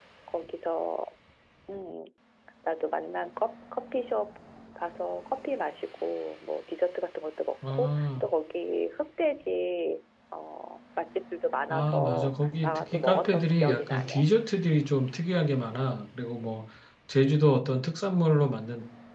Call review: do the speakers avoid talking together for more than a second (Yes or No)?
No